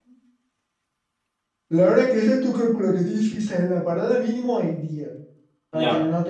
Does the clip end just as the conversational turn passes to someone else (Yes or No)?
No